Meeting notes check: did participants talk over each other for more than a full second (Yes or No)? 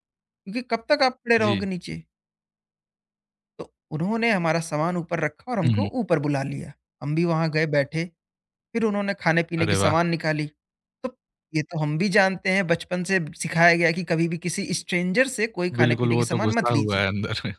Yes